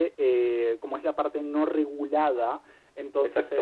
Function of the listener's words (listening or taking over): listening